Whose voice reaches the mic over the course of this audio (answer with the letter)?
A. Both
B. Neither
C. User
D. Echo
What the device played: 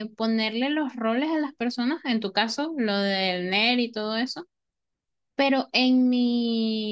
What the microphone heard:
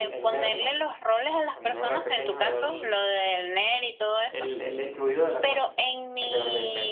A